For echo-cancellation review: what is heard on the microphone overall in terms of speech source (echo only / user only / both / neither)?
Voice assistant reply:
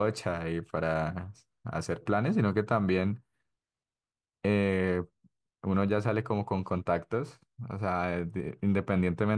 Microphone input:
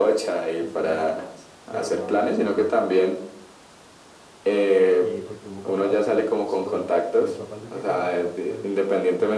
both